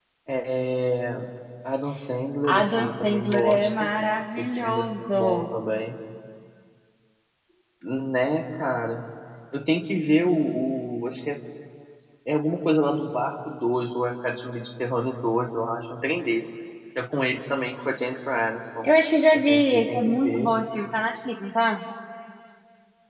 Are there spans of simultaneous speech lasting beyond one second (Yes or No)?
Yes